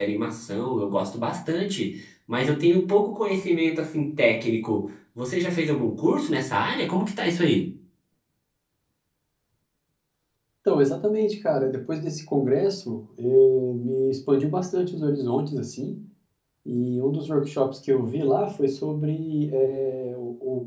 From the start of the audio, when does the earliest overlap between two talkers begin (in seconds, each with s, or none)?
none